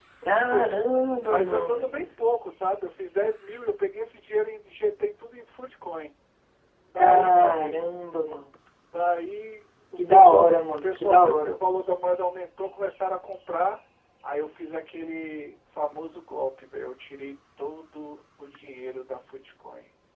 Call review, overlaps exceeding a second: present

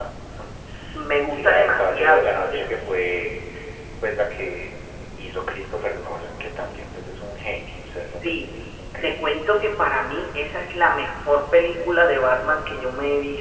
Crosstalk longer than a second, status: present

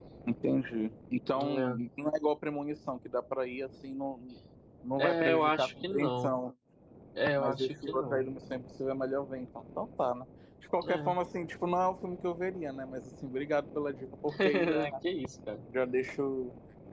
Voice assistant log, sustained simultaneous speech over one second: present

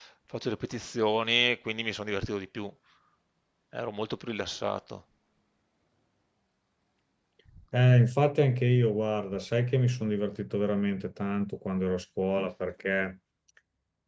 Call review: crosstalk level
none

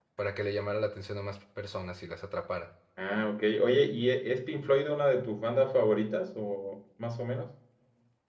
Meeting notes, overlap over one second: none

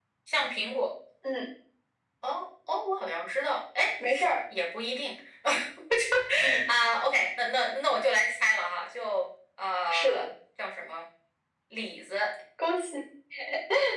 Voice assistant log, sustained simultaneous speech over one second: none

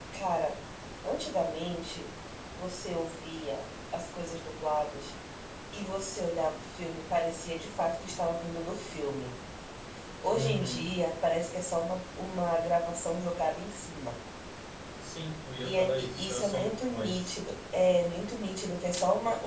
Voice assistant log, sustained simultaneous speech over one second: present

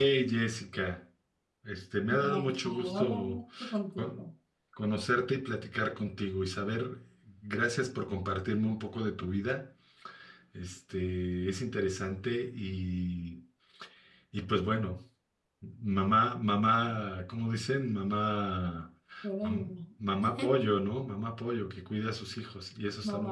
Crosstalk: present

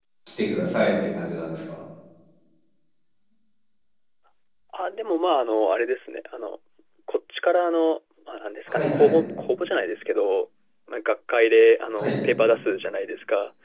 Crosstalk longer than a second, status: none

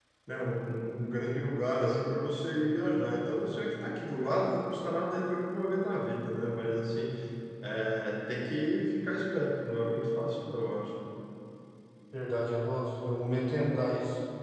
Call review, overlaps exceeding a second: none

